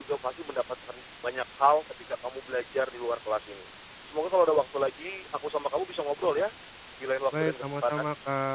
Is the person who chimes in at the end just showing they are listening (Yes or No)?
No